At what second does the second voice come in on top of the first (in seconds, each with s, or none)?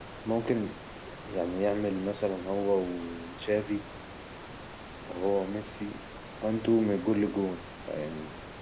none